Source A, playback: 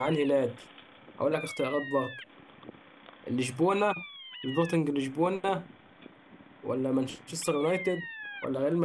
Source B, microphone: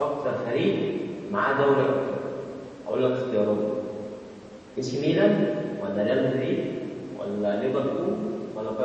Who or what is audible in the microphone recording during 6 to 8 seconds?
user only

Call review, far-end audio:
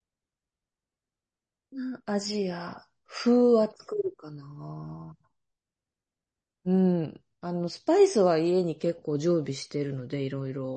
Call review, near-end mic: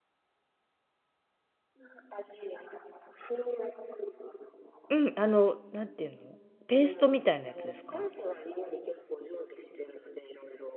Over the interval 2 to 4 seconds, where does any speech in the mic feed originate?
echo only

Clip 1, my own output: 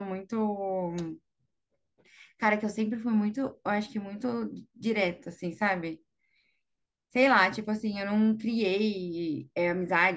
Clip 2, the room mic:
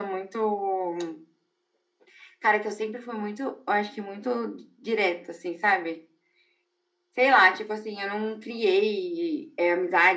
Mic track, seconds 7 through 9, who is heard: echo only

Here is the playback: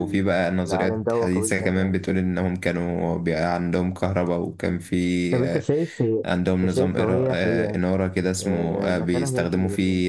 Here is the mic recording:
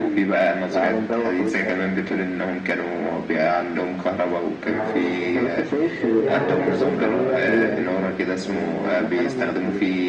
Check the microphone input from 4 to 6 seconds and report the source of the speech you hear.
both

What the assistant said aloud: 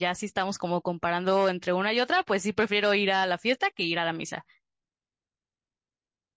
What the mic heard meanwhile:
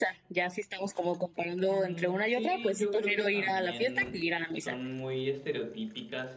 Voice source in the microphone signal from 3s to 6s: both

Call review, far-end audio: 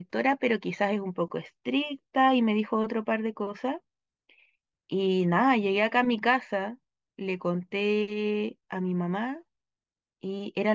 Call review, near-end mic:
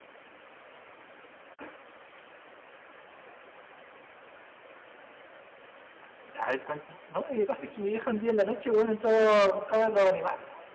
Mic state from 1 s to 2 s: neither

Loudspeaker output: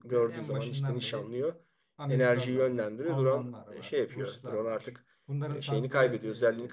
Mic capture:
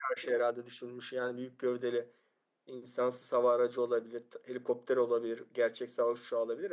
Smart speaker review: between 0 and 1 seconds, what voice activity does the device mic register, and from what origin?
user only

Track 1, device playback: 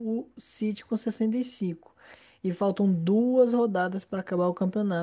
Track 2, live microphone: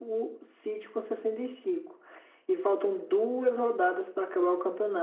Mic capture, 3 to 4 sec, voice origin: echo only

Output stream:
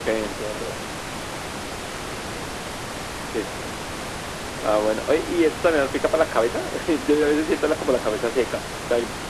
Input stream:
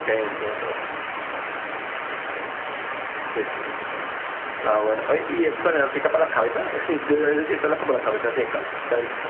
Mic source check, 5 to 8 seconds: echo only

